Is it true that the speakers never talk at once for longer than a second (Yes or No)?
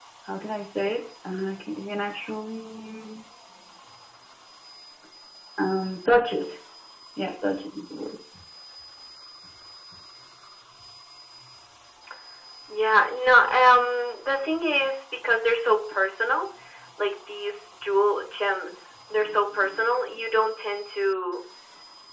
Yes